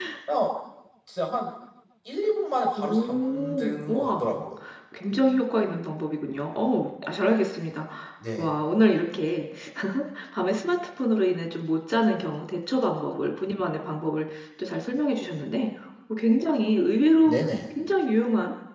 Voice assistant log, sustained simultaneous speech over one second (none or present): present